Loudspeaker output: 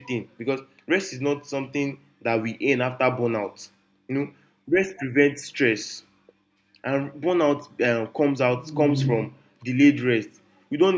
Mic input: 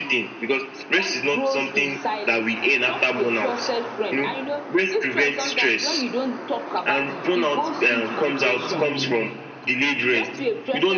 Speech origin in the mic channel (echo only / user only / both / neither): both